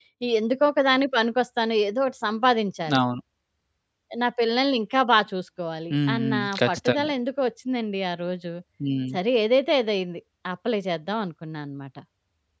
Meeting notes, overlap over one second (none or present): present